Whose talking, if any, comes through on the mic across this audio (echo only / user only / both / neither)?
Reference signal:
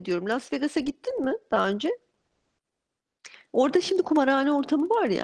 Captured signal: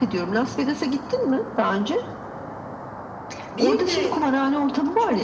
both